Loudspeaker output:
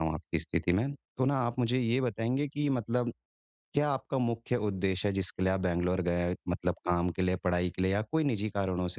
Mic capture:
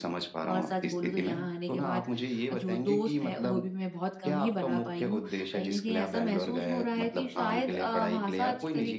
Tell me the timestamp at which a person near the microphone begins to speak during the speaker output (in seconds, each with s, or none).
0.4 s